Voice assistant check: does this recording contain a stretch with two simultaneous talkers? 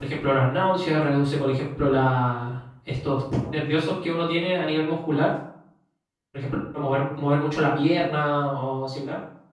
No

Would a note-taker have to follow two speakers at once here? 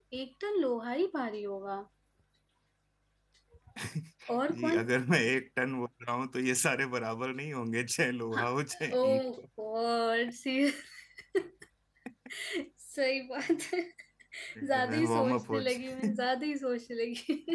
Yes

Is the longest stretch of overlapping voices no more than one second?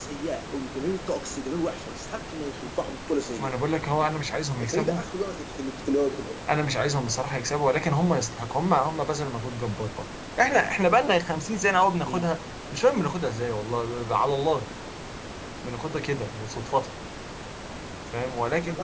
Yes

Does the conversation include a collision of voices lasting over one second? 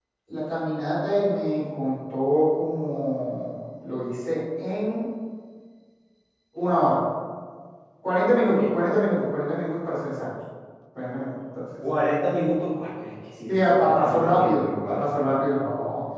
Yes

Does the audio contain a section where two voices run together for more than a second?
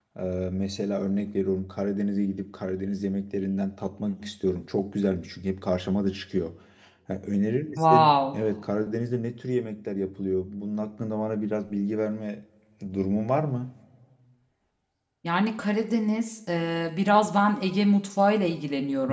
No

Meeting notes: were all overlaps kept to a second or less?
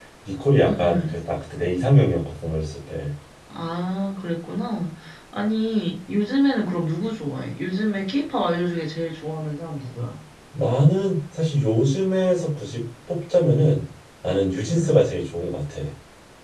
Yes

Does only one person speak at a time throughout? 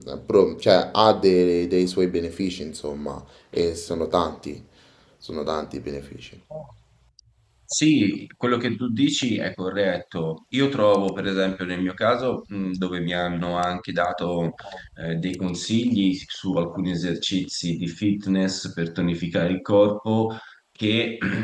Yes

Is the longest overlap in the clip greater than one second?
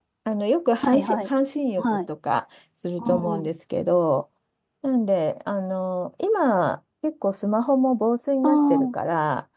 No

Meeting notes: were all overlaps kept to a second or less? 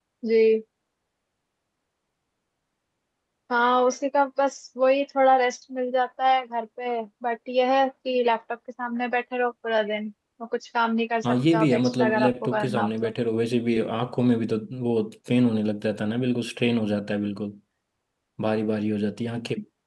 No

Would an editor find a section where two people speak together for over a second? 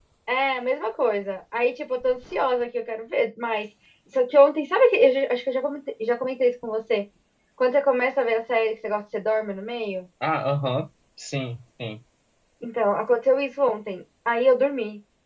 No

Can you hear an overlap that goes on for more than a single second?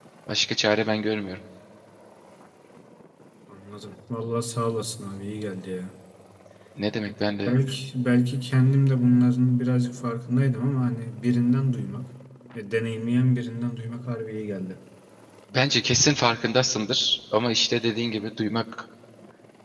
No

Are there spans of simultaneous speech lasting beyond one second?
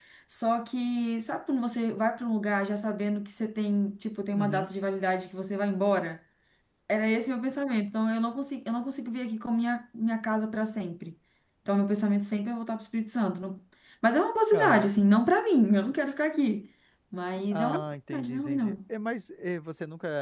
Yes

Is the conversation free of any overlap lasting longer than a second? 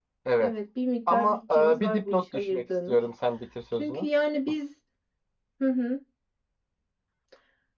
No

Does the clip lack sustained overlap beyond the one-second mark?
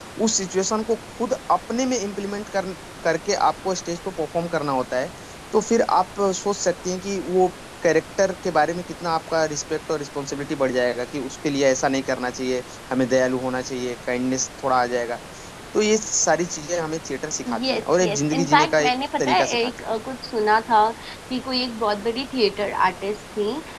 No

